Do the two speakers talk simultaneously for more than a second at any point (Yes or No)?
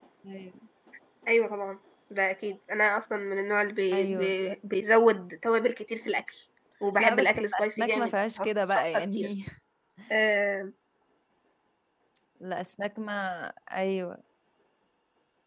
Yes